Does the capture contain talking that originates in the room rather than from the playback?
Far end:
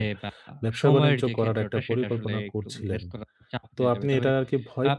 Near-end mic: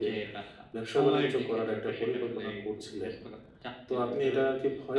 No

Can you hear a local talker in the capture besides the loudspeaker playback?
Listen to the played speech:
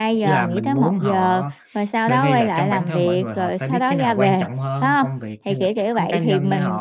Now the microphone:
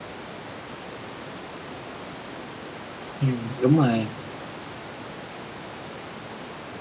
Yes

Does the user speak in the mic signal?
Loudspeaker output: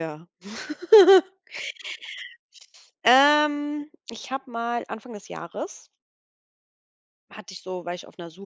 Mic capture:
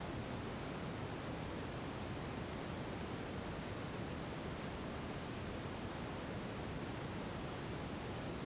No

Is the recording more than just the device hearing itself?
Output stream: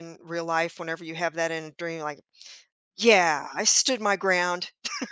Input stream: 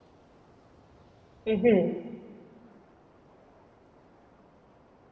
Yes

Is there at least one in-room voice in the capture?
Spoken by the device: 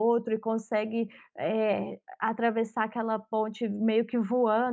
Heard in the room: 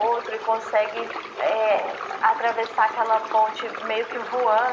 No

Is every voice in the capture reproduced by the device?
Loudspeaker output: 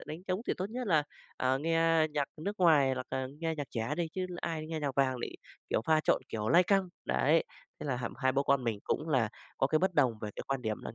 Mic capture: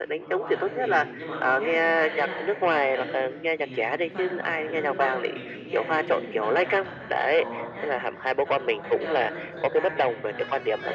No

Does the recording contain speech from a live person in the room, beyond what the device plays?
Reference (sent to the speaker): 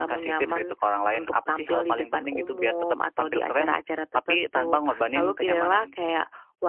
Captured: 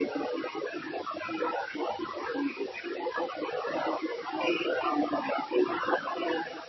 No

